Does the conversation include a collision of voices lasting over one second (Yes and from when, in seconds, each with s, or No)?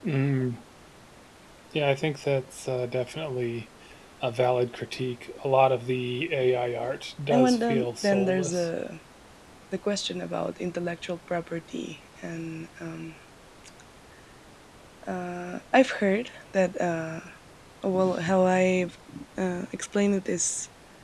Yes, from 7.3 s